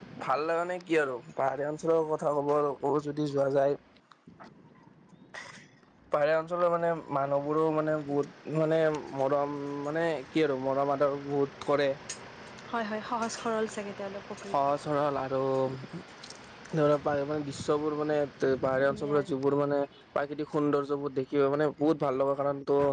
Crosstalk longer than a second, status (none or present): none